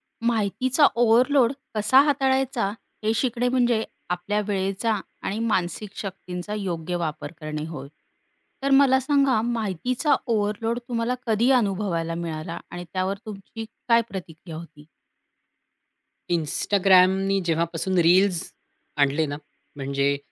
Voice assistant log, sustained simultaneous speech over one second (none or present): none